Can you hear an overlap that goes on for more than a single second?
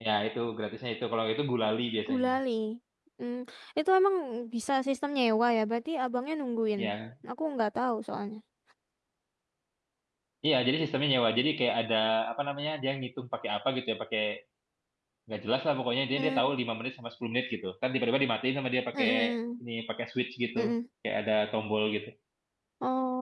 No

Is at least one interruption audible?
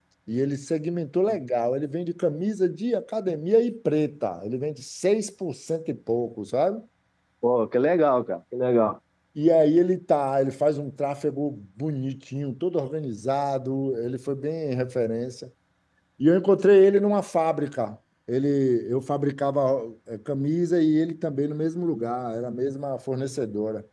No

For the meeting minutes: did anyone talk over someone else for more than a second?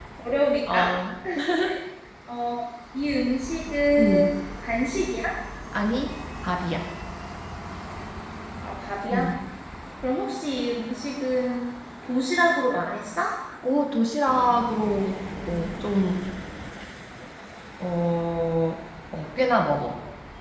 No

